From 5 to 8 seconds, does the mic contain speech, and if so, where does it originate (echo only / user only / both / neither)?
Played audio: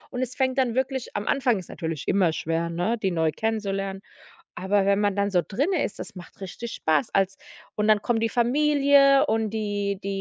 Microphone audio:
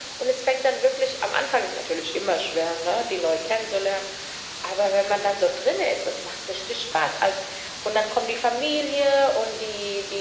echo only